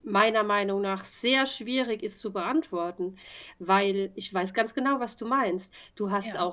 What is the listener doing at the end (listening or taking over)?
listening